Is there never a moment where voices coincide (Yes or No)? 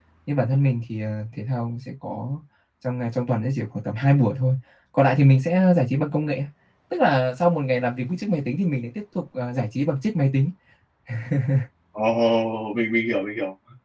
Yes